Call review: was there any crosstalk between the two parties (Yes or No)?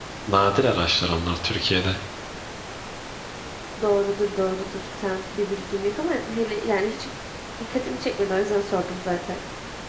No